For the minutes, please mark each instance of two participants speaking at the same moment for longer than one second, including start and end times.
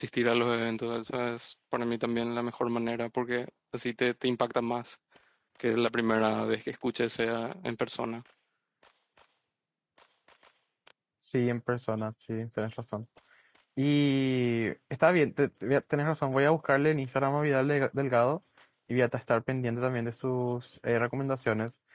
none

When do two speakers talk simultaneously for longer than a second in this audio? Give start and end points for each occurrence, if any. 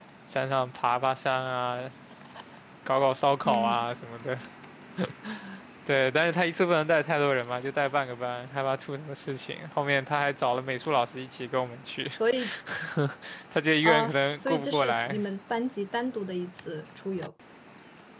13.8-15.2

